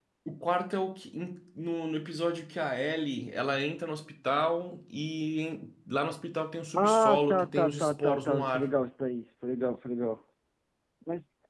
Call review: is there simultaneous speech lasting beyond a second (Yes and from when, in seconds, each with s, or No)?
Yes, from 6.7 s